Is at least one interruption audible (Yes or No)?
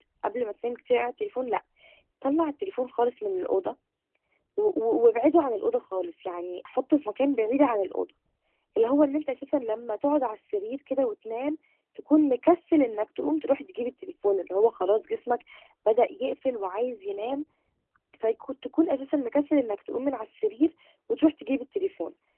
No